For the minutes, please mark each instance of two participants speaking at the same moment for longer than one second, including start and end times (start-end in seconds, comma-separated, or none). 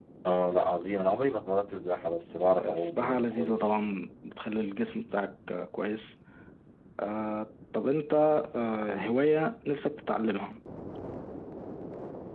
2.5-3.9